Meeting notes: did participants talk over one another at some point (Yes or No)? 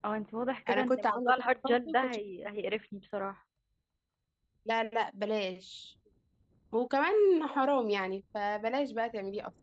Yes